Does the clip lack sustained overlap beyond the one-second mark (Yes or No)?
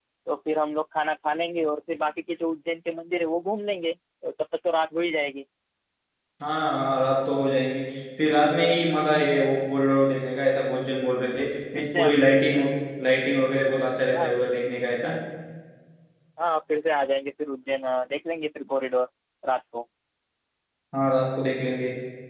Yes